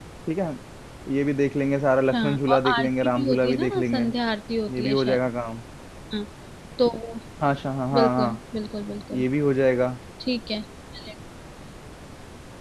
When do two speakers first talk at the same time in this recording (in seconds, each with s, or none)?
2.1 s